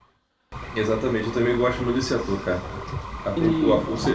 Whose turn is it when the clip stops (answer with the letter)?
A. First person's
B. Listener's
A